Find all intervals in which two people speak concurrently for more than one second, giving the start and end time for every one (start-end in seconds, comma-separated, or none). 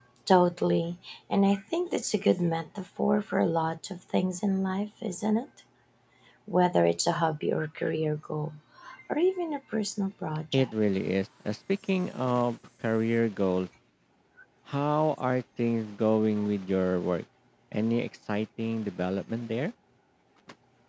none